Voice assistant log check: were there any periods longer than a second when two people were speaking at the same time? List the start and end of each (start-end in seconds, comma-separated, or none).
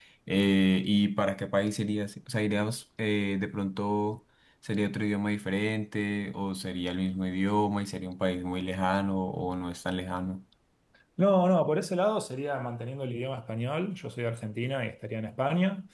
none